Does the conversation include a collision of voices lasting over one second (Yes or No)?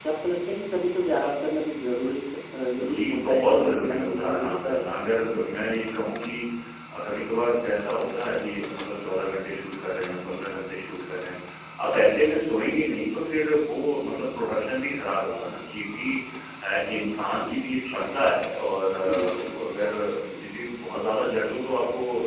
Yes